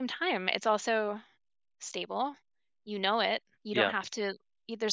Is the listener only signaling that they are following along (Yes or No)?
Yes